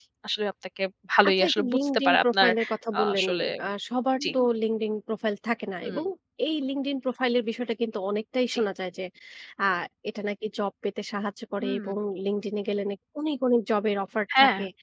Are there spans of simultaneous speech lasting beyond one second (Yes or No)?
Yes